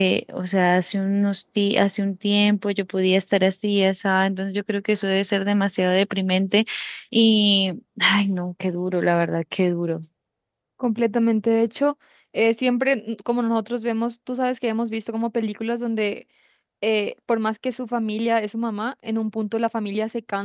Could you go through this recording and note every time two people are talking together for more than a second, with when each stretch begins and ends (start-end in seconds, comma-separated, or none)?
none